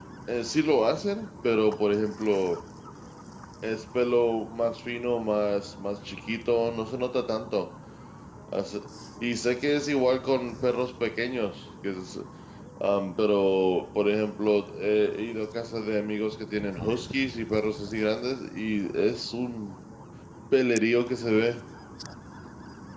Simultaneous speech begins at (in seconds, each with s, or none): none